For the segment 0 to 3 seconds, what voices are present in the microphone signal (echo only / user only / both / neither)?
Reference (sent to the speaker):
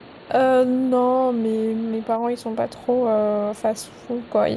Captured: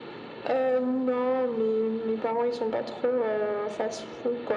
echo only